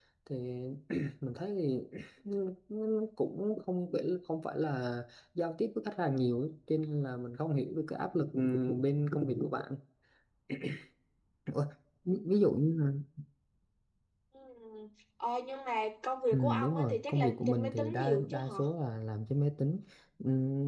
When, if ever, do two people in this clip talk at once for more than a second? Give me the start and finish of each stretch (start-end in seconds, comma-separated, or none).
16.3-18.6